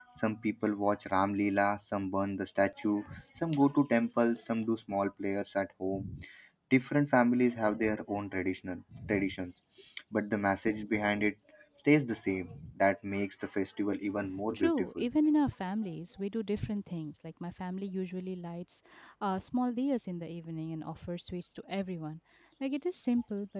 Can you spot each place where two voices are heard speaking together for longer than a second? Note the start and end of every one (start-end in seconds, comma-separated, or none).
none